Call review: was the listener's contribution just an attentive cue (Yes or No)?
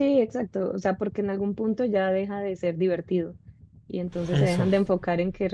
Yes